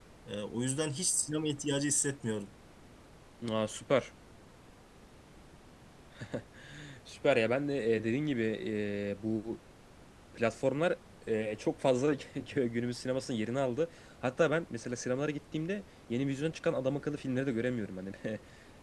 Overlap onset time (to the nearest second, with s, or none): none